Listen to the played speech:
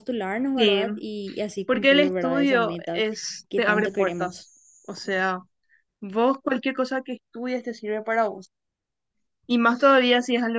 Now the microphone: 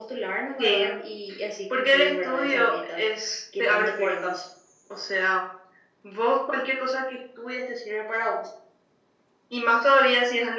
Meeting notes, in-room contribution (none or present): none